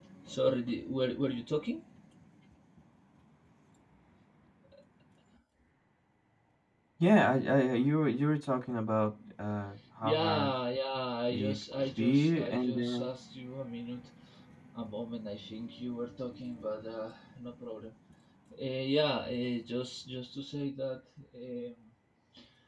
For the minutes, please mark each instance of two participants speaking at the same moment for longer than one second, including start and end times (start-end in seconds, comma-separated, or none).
11.3-13.1